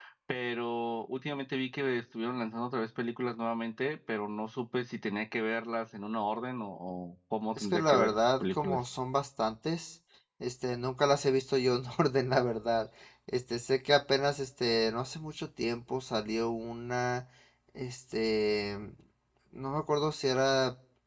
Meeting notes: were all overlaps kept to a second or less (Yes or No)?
No